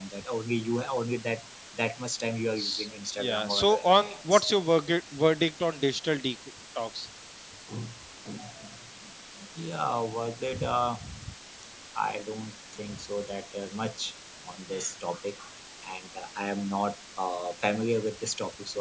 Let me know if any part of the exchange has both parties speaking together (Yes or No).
Yes